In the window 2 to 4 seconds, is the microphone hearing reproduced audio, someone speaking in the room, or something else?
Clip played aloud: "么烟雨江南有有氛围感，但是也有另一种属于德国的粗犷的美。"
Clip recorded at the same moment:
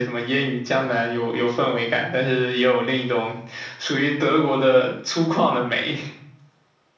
echo only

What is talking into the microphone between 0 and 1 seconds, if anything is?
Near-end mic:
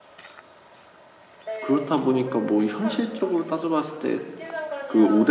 neither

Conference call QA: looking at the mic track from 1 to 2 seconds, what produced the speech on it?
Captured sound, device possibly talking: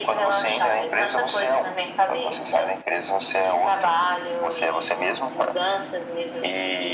echo only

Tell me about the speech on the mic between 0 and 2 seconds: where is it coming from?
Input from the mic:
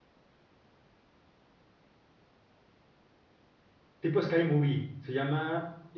neither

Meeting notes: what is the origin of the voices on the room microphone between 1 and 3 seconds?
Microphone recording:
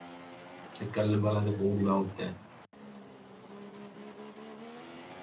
user only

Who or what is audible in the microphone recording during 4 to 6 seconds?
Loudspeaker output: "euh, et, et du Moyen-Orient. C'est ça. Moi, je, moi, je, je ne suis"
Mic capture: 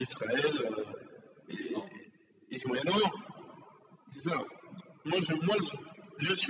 echo only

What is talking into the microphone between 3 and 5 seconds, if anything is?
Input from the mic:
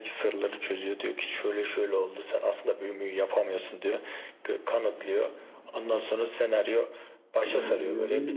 echo only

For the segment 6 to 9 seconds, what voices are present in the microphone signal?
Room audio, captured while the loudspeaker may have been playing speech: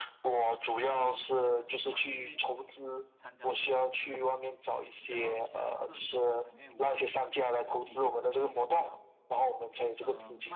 both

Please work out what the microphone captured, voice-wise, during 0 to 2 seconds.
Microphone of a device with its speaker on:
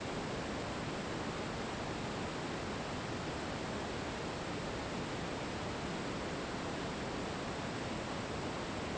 neither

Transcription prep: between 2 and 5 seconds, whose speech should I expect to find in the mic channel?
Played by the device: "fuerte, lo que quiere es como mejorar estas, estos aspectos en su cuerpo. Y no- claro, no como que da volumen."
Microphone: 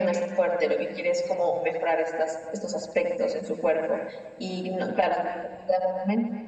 echo only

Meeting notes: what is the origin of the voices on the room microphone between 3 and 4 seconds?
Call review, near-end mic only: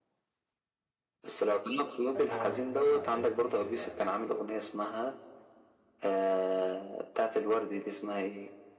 both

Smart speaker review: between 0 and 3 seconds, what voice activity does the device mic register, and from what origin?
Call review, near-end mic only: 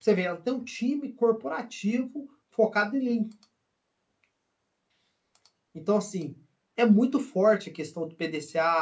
user only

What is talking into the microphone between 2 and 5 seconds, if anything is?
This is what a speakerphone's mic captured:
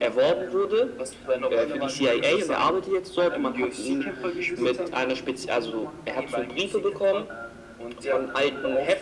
both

